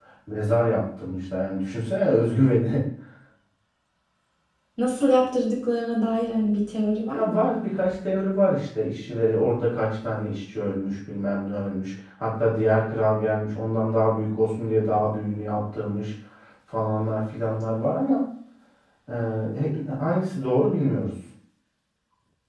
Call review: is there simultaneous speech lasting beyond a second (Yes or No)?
No